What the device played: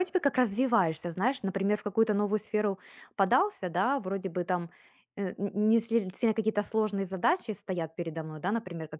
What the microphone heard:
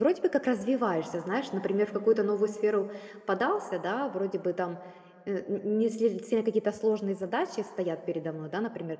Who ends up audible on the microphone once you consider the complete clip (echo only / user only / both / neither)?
echo only